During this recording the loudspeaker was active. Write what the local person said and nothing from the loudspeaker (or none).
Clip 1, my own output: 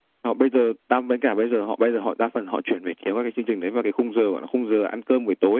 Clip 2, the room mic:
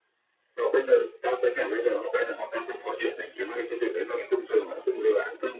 none